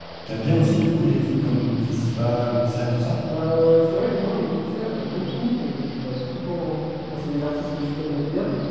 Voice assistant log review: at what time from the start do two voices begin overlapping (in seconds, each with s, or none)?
none